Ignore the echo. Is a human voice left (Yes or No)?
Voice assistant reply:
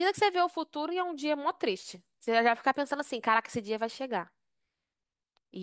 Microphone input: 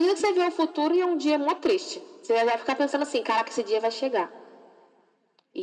No